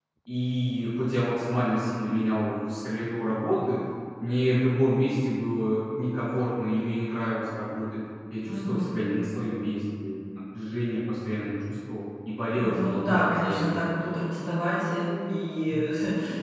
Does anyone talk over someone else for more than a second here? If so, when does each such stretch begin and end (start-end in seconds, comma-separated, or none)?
12.6-13.8